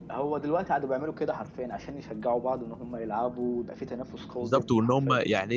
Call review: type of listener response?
taking over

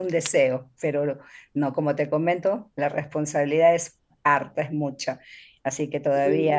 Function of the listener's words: listening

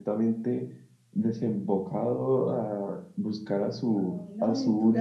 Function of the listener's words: taking over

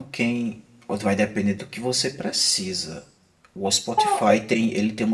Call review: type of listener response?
listening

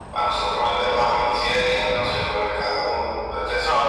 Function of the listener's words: taking over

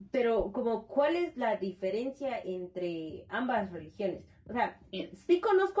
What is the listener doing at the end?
listening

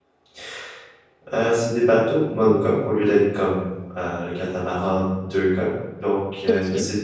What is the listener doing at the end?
listening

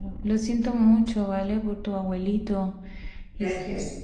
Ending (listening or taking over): listening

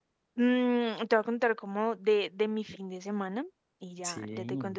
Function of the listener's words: listening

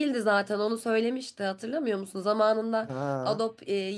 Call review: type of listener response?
listening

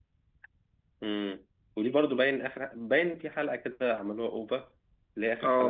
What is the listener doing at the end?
taking over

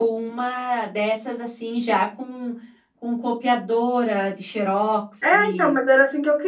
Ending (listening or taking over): taking over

